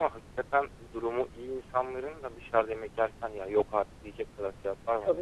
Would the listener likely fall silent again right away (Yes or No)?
No